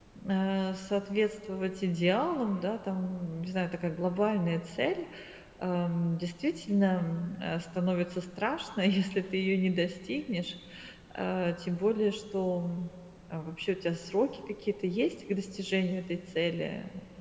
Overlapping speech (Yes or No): No